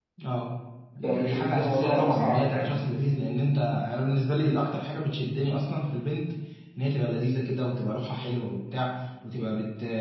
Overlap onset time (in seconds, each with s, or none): 1.0 s